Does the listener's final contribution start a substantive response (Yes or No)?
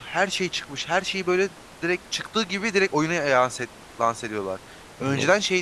No